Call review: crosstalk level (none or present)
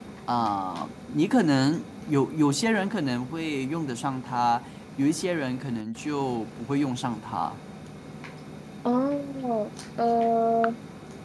none